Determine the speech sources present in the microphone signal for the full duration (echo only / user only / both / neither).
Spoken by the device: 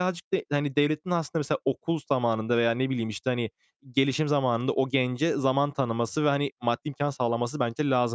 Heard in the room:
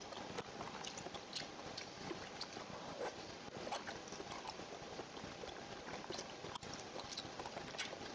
neither